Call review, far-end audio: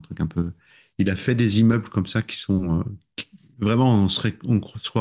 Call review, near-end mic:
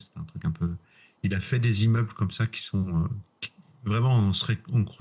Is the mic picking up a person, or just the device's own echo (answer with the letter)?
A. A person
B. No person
B